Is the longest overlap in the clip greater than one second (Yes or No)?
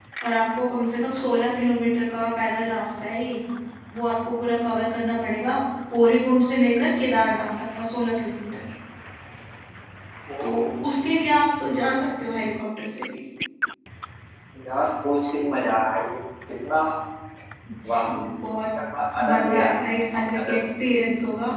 No